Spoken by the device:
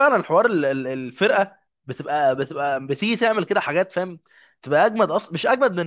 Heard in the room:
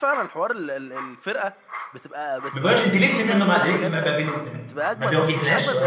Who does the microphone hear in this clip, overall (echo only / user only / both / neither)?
both